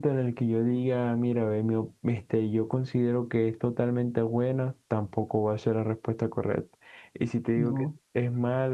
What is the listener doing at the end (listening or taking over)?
listening